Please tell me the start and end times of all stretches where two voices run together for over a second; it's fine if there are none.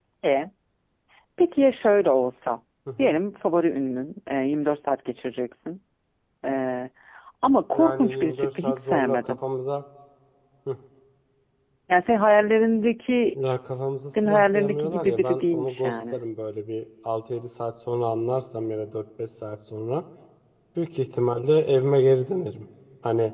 7.7-9.2, 14.2-16.2

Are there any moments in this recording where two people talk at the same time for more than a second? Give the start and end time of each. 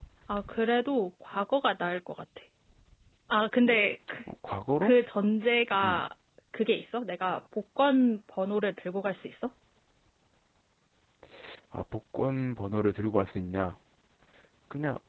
none

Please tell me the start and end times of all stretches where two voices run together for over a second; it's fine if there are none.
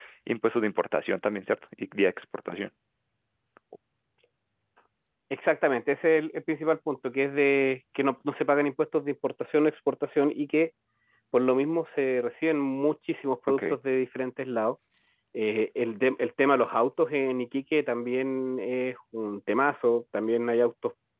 none

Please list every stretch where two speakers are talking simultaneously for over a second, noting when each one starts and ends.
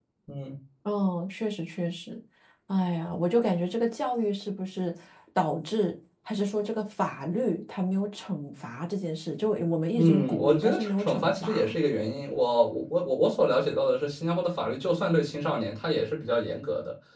9.9-11.8

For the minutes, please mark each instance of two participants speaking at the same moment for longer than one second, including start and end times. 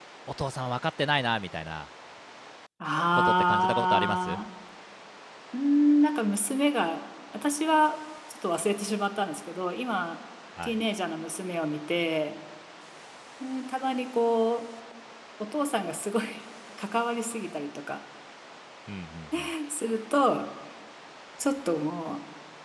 3.1-4.4

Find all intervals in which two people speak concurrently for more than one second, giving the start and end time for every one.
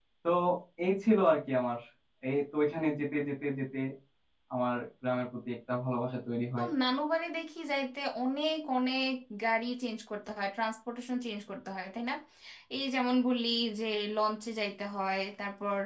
none

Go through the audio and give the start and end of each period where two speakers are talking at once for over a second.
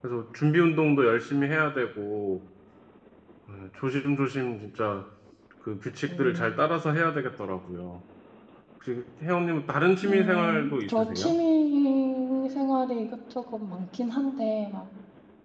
10.0-11.3

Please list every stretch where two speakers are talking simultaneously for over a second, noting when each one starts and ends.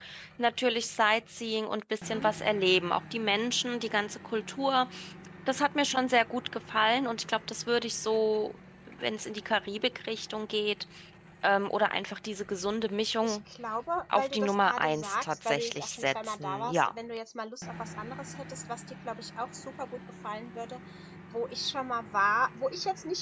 14.1-16.9

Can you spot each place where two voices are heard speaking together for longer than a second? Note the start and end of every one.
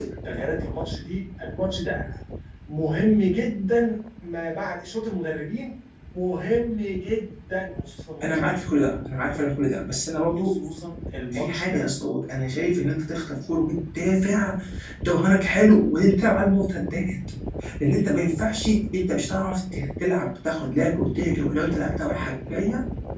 none

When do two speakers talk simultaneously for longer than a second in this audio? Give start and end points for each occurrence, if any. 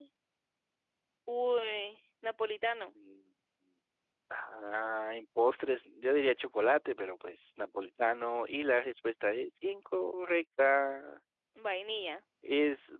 none

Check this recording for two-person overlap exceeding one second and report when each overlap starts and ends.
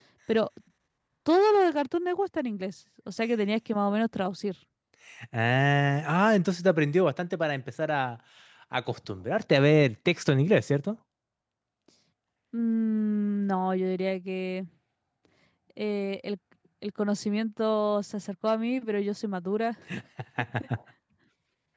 none

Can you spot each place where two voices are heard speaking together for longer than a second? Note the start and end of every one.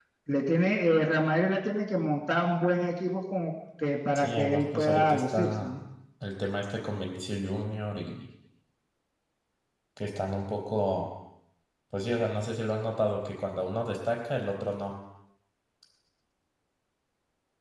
4.2-5.7

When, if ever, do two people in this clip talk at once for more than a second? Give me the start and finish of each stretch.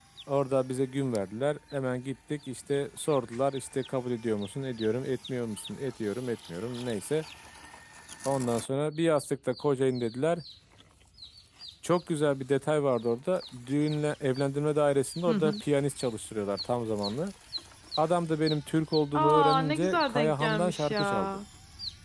19.1-21.4

